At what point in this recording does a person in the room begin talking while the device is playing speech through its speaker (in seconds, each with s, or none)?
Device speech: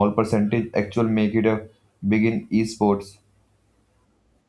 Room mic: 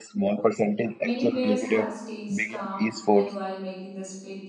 1.0 s